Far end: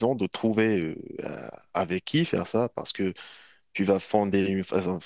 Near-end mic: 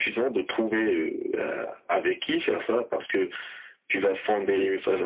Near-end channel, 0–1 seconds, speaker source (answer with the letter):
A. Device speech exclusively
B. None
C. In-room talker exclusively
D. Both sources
A